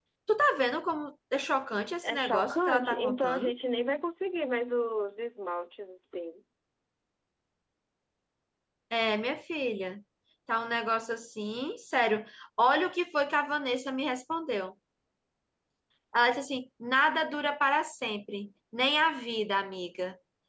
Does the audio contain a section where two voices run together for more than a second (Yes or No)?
Yes